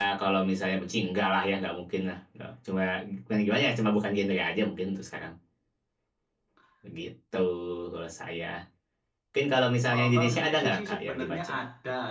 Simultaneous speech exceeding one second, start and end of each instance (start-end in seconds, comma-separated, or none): 9.9-11.5